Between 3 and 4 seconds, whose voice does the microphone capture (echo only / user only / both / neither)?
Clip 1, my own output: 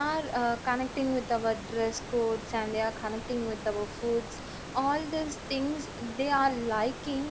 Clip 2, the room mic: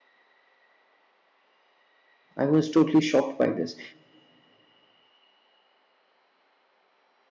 user only